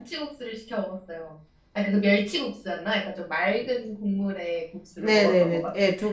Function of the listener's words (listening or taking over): taking over